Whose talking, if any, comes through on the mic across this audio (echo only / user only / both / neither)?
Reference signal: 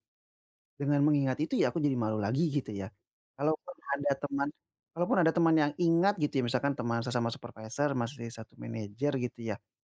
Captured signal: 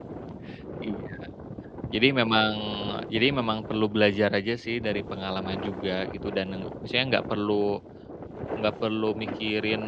user only